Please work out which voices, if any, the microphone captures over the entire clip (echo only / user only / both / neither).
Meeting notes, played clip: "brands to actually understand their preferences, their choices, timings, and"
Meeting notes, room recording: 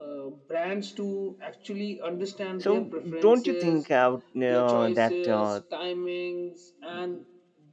both